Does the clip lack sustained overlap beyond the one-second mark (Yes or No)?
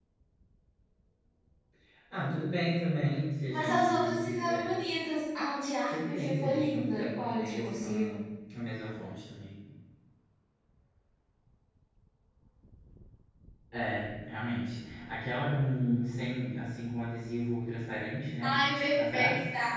No